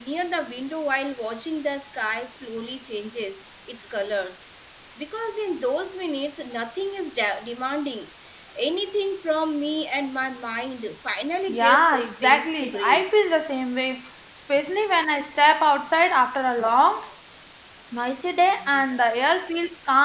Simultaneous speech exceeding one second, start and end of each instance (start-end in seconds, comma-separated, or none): 11.5-13.1